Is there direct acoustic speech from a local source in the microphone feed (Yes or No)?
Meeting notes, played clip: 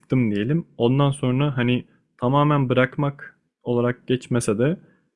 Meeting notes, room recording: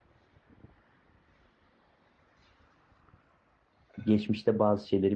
Yes